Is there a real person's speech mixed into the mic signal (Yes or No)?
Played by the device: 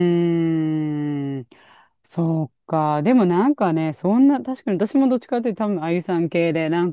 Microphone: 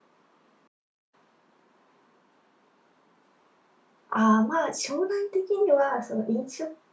Yes